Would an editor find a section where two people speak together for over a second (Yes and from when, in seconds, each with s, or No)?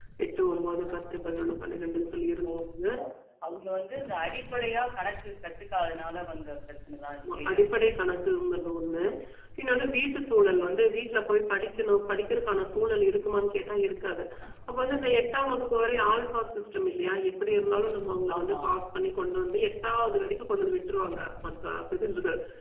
No